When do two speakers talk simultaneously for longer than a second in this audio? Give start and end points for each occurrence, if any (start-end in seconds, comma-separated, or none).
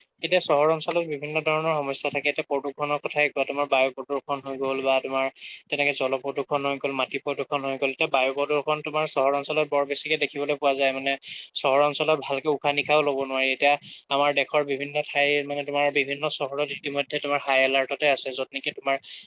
none